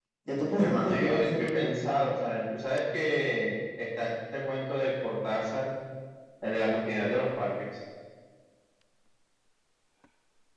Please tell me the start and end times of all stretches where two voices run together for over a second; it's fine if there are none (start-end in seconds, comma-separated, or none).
0.6-1.9